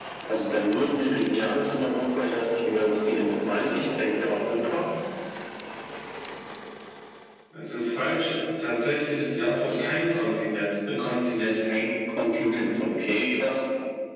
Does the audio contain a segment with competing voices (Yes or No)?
No